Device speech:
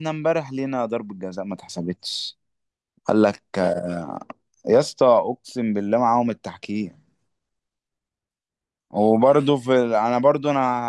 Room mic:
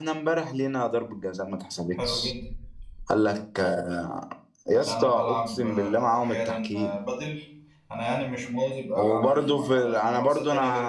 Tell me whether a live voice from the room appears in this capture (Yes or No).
Yes